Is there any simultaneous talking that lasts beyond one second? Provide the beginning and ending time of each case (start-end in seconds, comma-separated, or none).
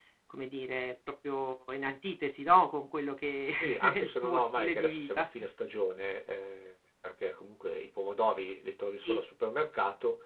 3.6-5.3